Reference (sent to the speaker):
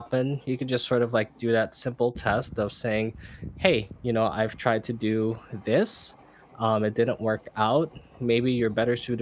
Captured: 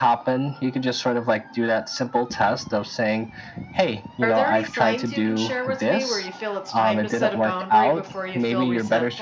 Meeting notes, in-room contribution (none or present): present